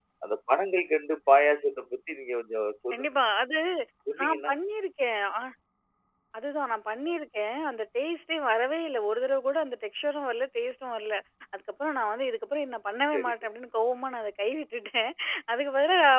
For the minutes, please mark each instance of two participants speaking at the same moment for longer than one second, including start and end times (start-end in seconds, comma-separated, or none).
none